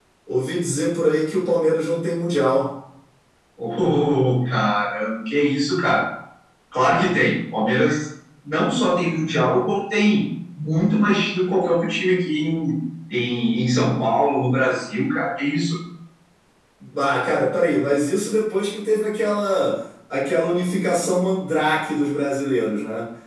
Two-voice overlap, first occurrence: none

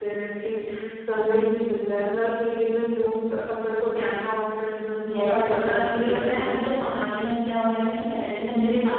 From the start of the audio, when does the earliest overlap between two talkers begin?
5.0 s

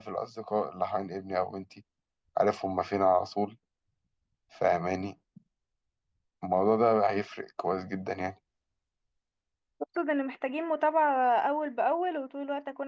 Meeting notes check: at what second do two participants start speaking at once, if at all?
none

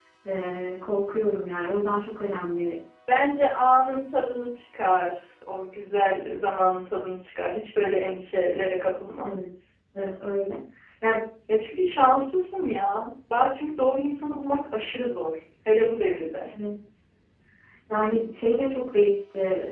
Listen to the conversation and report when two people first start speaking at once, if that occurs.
none

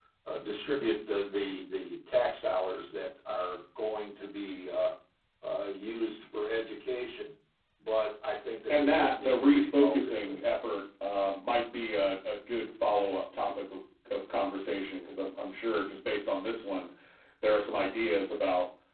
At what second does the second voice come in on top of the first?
8.7 s

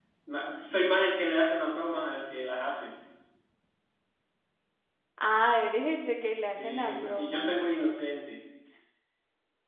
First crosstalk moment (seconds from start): 6.3 s

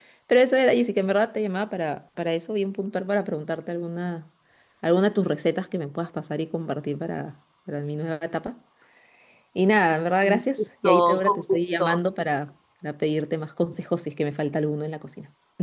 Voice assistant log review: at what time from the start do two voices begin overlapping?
10.2 s

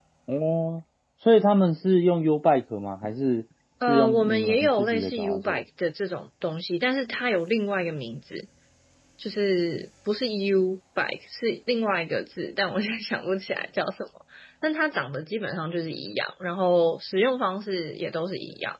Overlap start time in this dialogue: 3.8 s

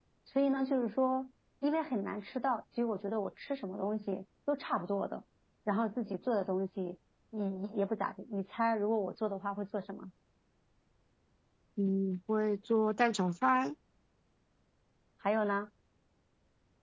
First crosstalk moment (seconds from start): none

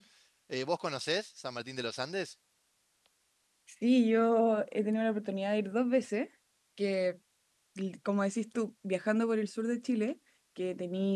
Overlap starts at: none

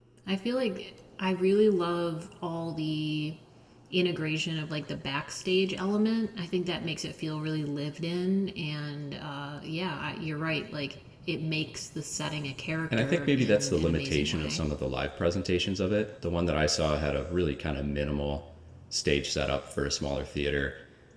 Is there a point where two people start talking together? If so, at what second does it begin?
12.9 s

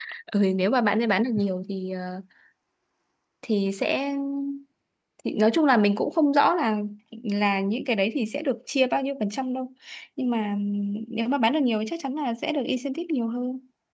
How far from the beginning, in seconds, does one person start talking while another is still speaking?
none

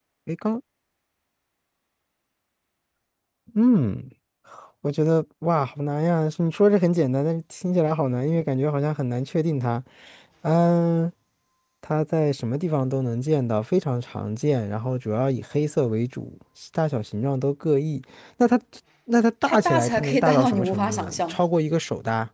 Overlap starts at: 19.5 s

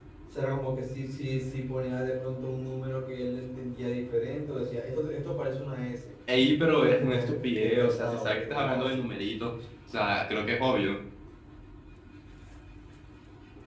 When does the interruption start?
6.8 s

